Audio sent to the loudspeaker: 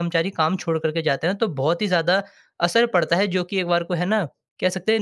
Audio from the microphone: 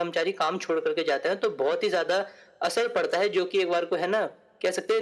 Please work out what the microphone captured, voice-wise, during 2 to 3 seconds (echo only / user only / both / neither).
echo only